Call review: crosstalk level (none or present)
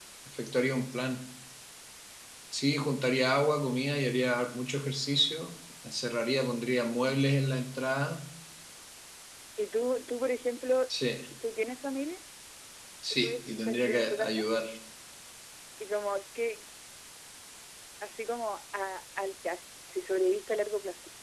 present